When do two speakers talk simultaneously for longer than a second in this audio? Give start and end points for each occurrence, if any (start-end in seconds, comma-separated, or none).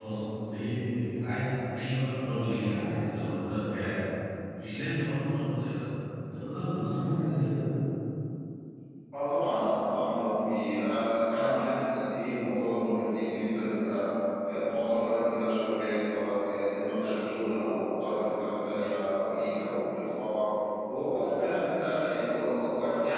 none